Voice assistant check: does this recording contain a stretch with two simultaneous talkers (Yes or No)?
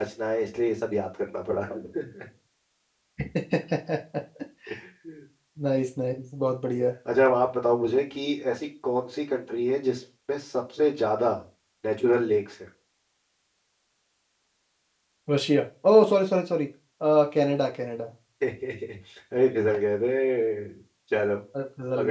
No